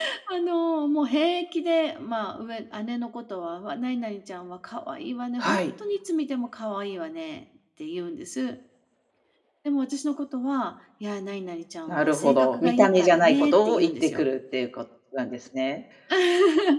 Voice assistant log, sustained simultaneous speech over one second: present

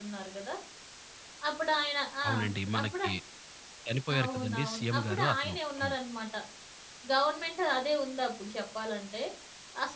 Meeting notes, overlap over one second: present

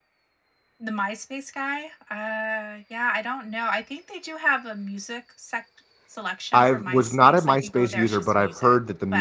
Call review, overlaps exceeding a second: present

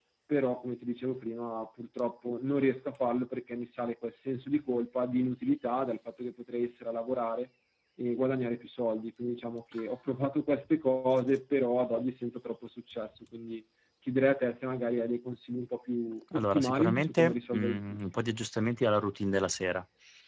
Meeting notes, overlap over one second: present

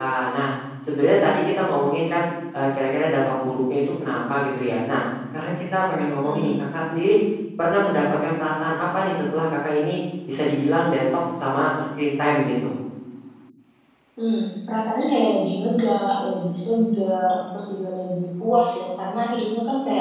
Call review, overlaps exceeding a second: none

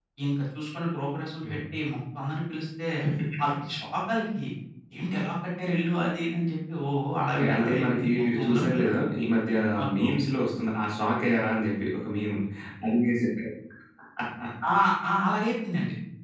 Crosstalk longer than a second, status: present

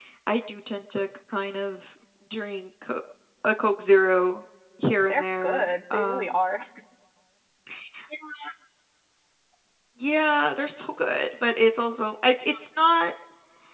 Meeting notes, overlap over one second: present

